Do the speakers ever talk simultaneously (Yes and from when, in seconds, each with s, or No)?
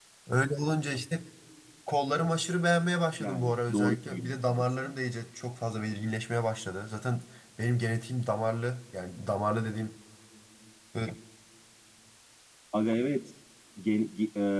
Yes, from 3.2 s